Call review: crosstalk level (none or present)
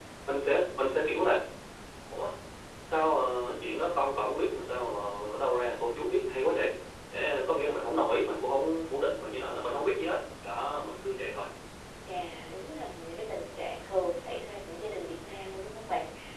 none